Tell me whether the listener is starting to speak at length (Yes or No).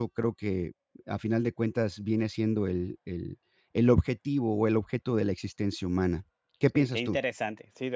Yes